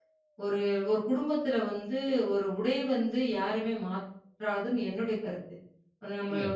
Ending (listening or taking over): listening